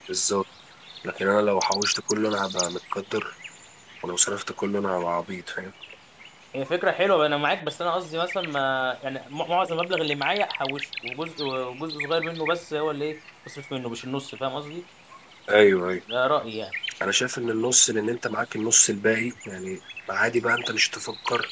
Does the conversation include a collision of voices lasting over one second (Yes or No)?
No